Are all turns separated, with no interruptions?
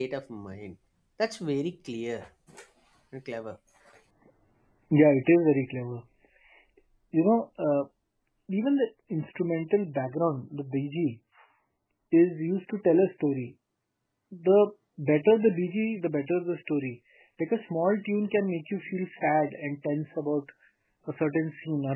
Yes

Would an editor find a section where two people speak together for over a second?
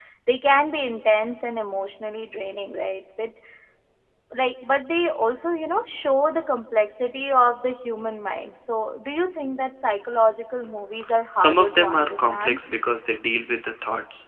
Yes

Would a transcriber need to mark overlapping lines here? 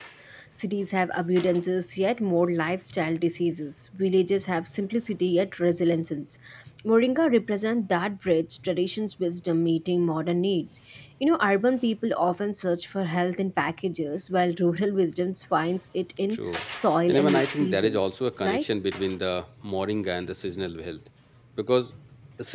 Yes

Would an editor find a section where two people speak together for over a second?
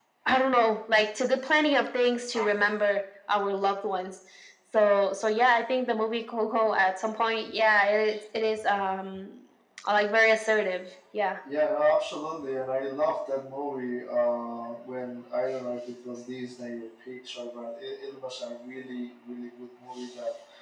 No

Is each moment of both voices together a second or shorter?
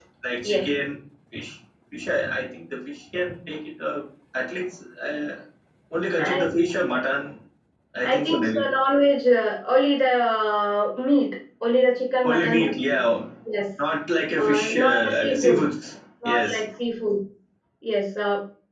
No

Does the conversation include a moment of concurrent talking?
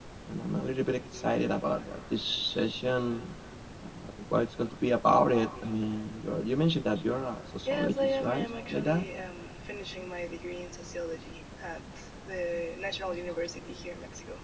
Yes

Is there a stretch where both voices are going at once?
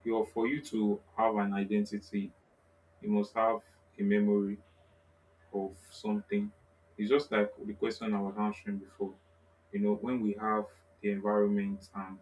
No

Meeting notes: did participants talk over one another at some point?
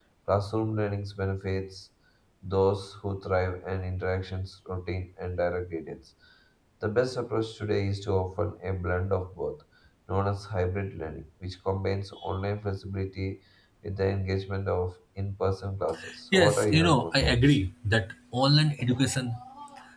Yes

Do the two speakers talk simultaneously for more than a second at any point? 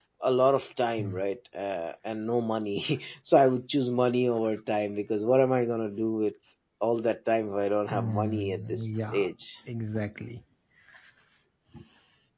Yes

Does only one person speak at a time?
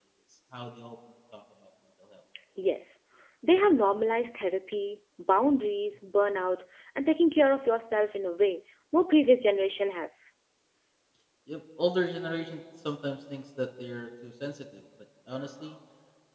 Yes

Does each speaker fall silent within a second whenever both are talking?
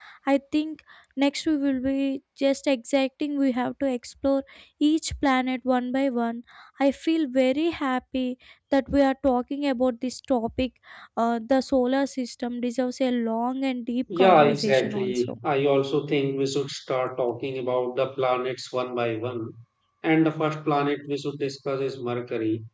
No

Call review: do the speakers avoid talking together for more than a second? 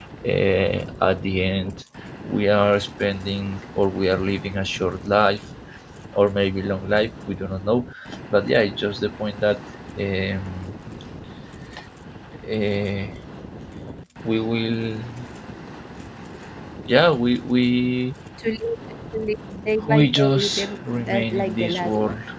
No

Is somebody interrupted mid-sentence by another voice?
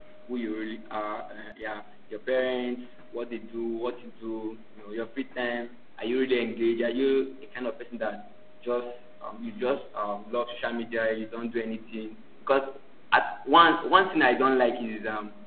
No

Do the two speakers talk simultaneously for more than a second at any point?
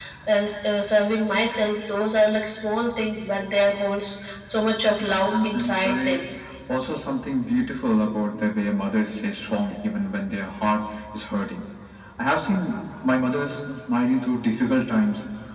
Yes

